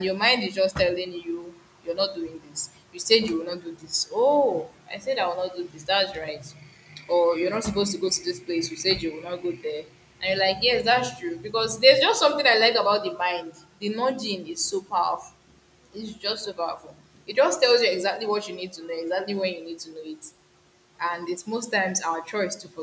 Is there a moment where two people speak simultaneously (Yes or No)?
No